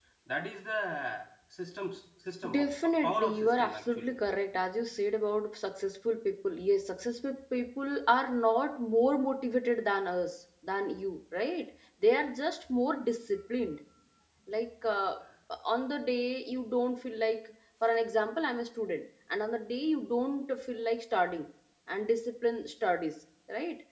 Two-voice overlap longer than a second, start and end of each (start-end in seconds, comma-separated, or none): 2.5-4.1